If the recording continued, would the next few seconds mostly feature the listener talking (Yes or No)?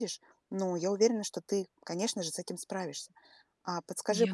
No